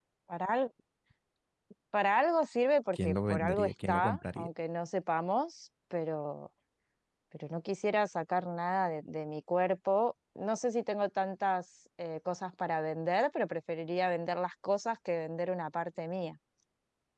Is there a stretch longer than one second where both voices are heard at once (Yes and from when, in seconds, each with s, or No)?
Yes, from 2.9 s